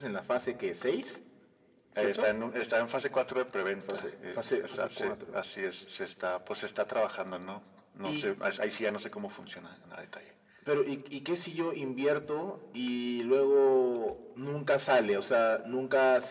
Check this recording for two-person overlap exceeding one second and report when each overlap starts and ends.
3.9-5.1

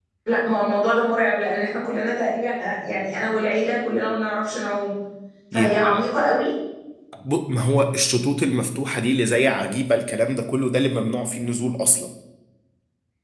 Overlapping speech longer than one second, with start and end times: none

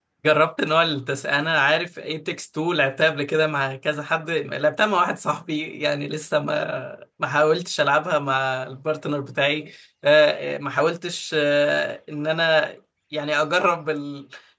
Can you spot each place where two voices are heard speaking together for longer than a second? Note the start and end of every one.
none

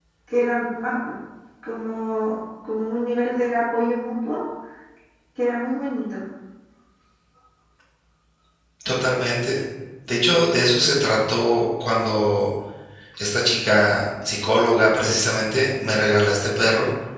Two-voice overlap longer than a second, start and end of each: none

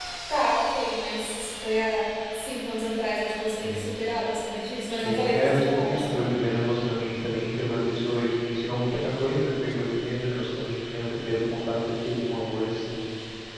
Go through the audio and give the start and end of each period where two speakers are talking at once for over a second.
4.9-6.3

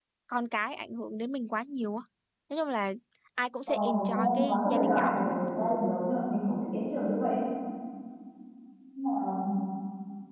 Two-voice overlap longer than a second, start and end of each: 3.7-5.5

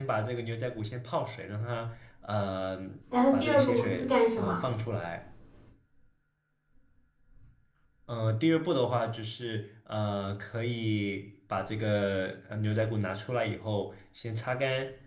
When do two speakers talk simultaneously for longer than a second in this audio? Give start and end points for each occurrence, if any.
3.3-4.6

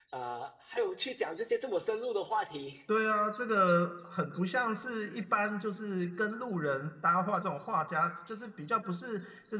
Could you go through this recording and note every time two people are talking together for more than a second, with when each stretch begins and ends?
none

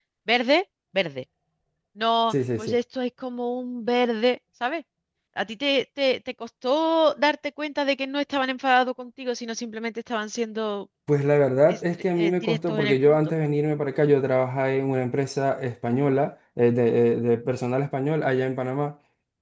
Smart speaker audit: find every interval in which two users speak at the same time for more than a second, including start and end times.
11.7-13.2

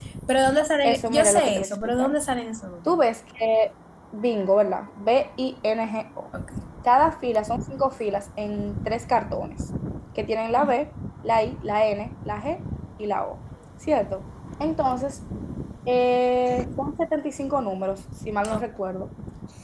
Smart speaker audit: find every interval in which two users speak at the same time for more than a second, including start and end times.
0.8-2.1

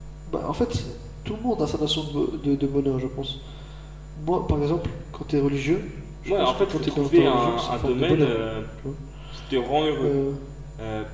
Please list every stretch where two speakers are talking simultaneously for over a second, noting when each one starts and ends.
6.4-8.3

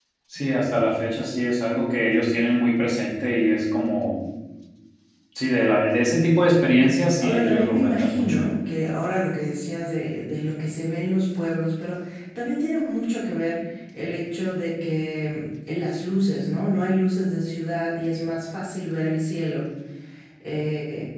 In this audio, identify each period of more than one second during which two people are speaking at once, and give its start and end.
7.2-8.4

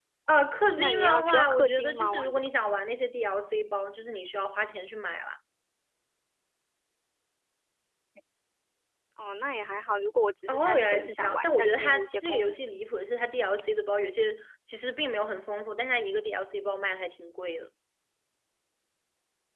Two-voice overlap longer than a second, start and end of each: 0.8-2.4, 10.5-12.5

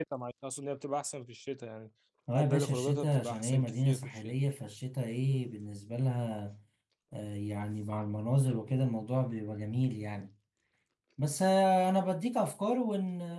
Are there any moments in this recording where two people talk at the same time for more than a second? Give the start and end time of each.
2.4-4.3

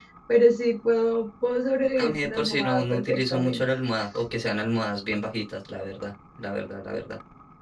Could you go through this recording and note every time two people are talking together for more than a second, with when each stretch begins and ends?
2.0-3.6

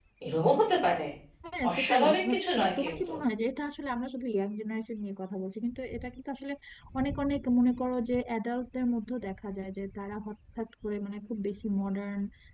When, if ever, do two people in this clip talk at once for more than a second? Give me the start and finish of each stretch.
1.7-3.1

